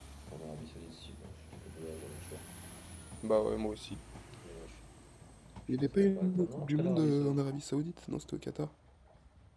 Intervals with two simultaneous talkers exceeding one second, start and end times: 5.7-7.4

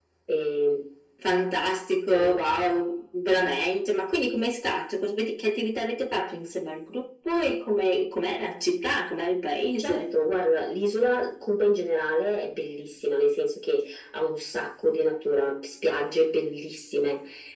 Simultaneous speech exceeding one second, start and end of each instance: none

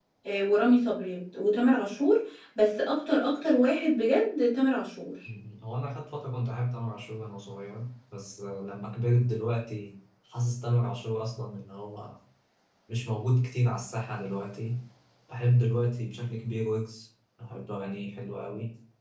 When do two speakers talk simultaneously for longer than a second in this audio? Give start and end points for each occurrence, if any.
none

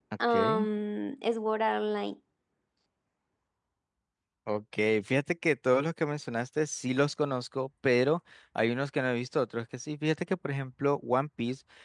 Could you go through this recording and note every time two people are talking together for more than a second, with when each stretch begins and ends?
none

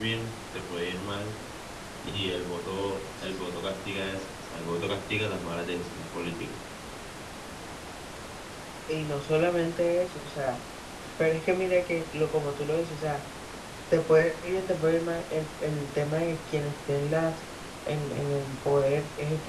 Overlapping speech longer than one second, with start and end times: none

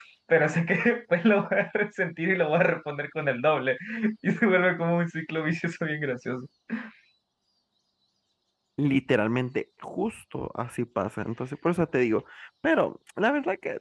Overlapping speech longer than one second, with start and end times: none

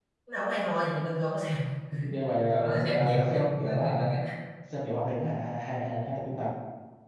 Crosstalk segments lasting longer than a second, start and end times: 2.5-4.1

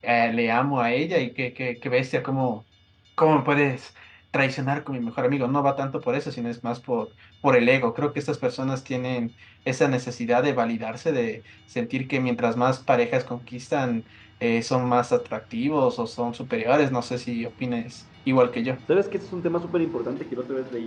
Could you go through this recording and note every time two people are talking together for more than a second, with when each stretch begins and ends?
none

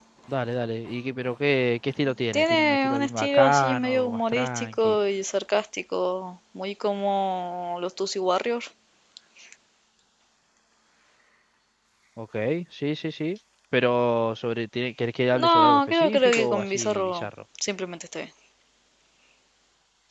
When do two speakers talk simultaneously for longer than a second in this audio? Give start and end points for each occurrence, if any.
2.3-5.0, 15.4-17.2

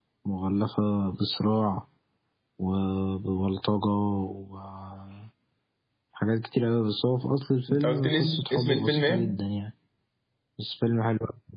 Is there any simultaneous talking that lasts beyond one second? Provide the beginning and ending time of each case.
7.7-9.3

